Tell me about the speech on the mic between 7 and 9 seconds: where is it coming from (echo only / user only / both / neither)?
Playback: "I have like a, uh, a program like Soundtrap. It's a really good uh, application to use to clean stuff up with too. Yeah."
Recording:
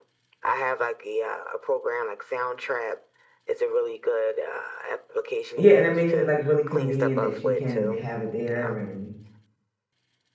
both